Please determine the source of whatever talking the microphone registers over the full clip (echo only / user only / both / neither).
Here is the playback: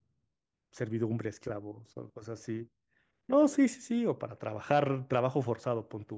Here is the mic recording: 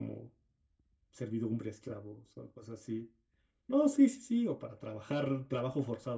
echo only